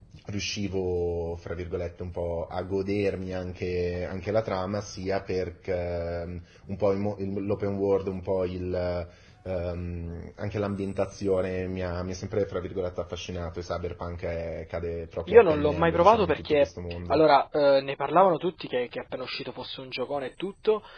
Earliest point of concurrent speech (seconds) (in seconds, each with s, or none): 15.3 s